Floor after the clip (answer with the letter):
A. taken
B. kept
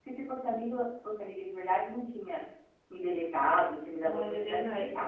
A